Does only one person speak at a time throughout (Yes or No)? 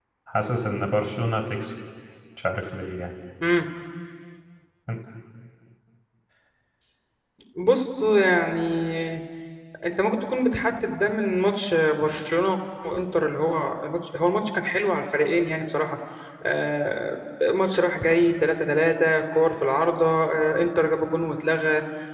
Yes